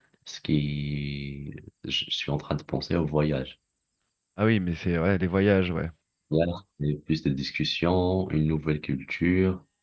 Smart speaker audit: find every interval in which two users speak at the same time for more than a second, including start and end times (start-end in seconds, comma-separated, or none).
none